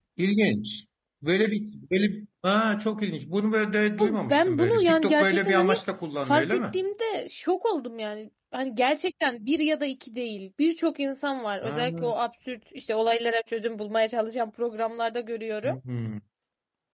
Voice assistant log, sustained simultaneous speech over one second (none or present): present